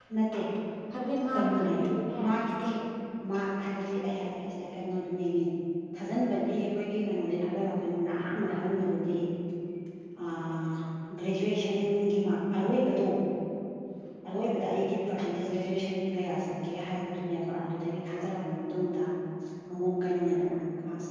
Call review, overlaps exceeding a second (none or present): none